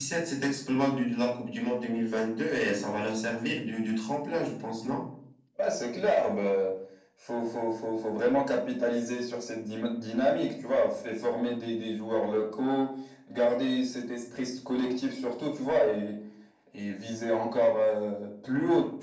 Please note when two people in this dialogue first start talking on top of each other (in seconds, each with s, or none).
none